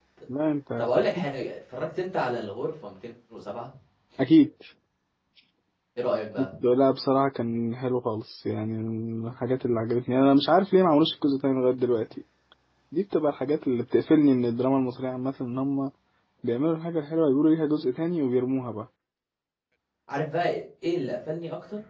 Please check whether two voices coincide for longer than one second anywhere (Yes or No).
No